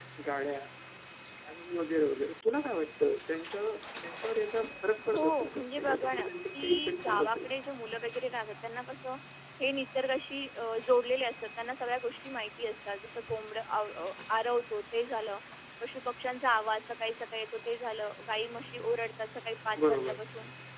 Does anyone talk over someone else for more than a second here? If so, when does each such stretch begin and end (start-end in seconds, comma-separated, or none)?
5.1-7.5